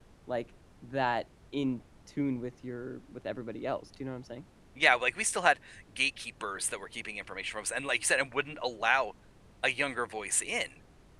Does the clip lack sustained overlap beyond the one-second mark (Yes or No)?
Yes